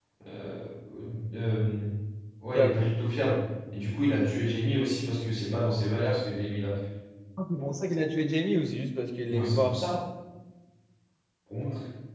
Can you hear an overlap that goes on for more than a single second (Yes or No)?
No